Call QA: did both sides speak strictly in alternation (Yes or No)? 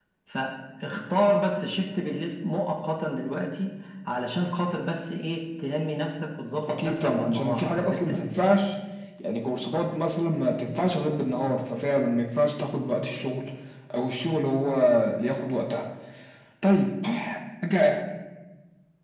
No